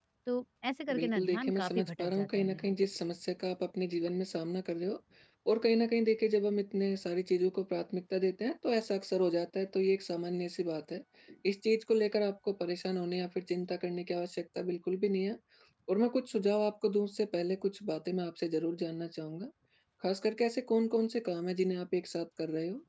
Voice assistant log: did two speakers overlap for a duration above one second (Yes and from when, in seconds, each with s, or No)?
Yes, from 0.9 s